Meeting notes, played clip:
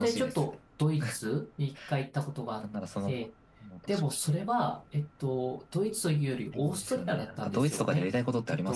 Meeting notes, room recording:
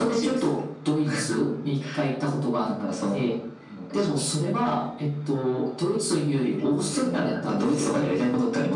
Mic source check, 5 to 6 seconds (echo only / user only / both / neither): echo only